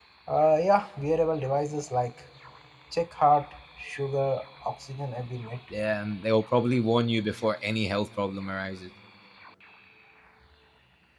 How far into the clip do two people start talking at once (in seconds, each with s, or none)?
none